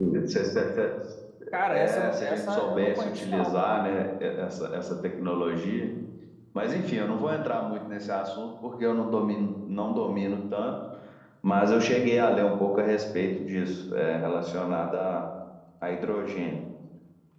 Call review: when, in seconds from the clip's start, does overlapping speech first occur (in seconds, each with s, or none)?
1.7 s